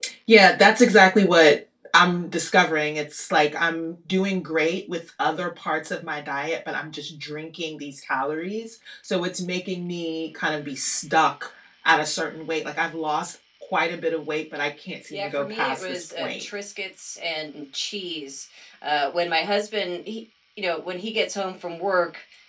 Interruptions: present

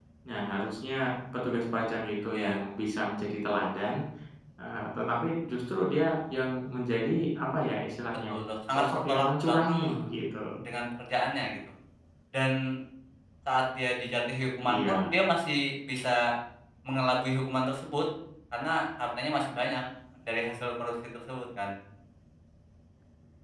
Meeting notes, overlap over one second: present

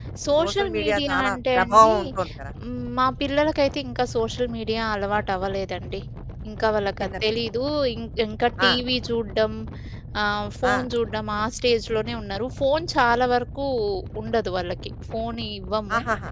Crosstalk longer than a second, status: present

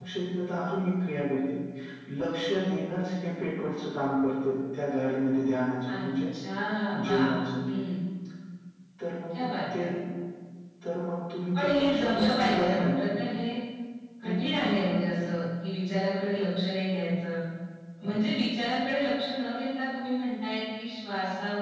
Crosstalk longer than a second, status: present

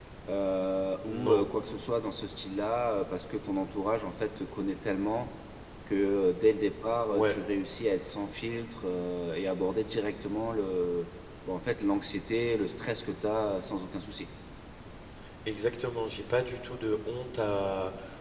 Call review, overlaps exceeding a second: none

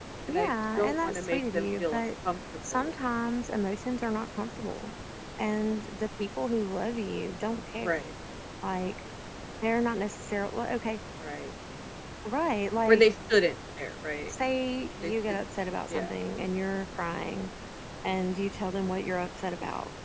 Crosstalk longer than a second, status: present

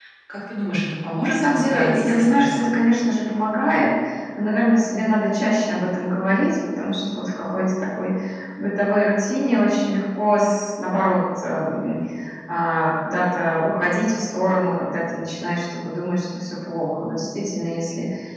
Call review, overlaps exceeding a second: present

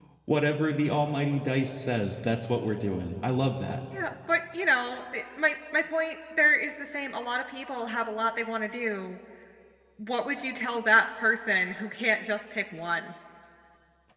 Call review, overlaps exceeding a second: none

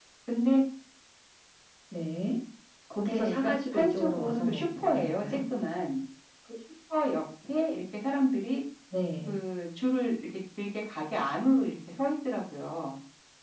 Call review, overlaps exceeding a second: present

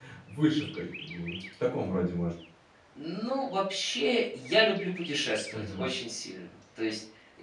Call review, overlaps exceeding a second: none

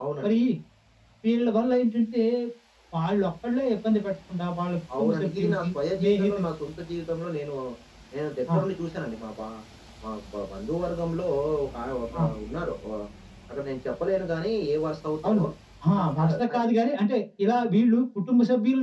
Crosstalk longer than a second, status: present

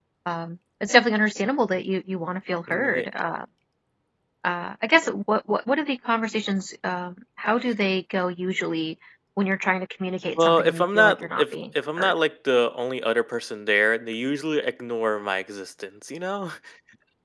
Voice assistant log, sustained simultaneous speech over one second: present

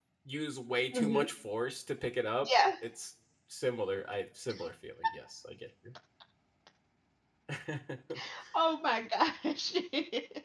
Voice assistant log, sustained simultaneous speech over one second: none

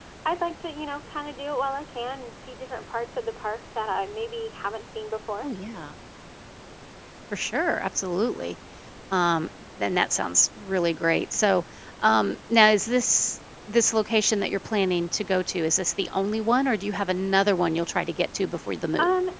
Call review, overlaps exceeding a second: none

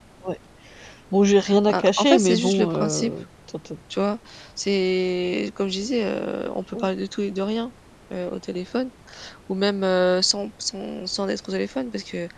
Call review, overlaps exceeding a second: present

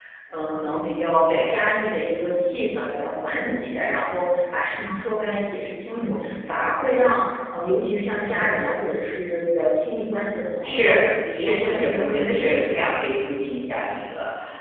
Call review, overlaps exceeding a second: present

